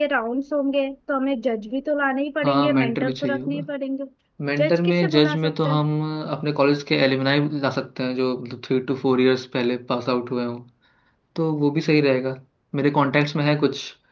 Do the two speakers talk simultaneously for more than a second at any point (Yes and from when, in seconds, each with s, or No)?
Yes, from 2.4 s